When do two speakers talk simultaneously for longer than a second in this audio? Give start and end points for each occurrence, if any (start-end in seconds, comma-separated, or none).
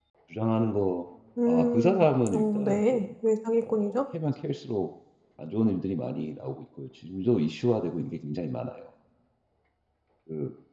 1.5-3.0